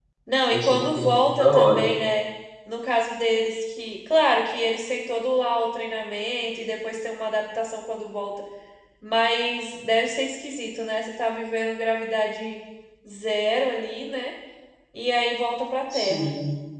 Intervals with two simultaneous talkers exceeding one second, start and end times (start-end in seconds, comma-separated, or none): 0.5-1.8